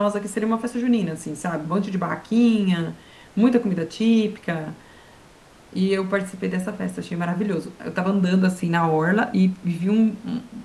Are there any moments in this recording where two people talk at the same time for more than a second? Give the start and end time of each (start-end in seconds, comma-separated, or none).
none